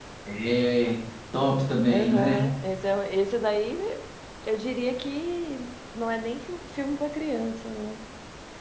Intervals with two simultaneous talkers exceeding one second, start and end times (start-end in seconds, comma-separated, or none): none